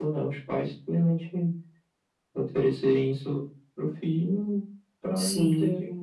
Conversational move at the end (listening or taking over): listening